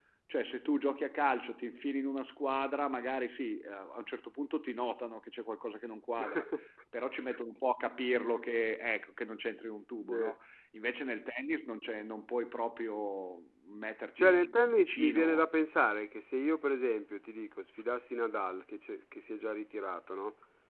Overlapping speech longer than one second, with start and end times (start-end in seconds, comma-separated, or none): 14.2-15.4